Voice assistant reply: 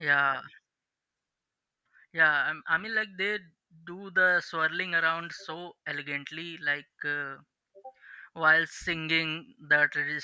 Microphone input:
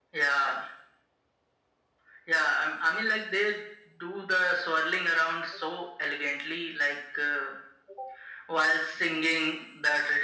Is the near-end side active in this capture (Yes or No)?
No